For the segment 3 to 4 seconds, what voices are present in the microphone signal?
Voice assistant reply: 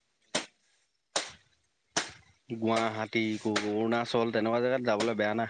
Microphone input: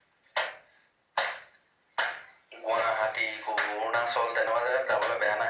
echo only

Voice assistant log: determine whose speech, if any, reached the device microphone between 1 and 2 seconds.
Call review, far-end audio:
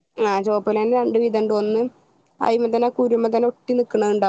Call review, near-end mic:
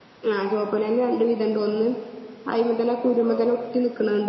echo only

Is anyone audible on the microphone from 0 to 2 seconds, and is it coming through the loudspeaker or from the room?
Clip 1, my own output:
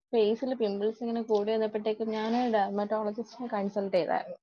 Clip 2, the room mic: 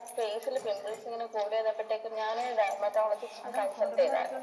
echo only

